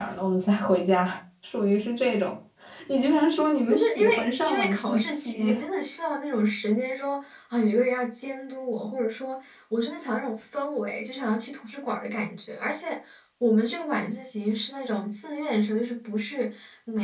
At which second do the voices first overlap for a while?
4 s

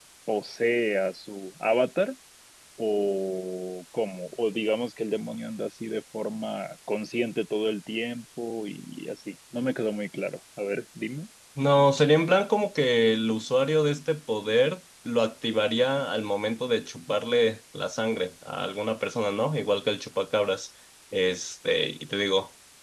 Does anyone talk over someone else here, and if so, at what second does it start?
none

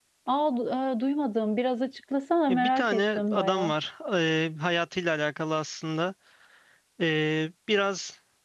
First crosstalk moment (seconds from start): 2 s

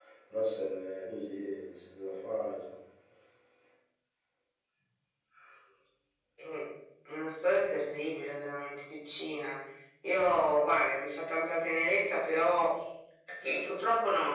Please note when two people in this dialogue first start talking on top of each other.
none

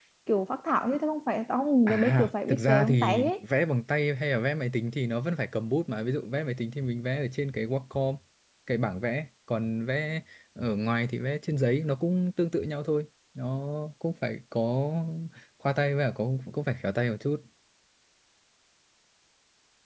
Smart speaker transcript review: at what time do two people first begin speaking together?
2 s

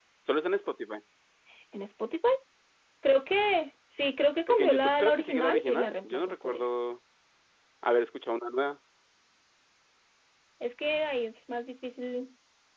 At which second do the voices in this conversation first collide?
4 s

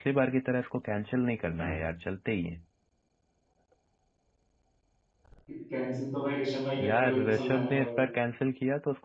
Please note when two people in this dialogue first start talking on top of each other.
7 s

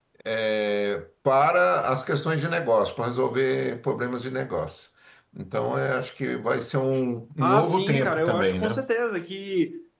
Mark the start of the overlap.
7 s

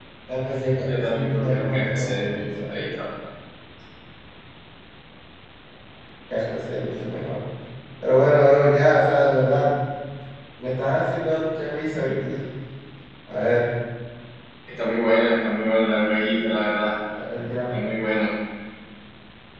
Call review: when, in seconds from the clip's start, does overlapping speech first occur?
1 s

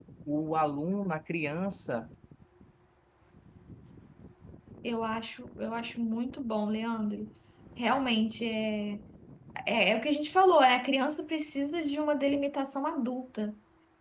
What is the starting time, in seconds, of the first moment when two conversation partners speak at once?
none

